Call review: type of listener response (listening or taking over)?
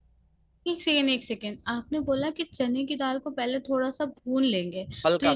listening